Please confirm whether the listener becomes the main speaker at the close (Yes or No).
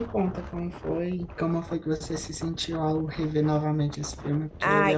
Yes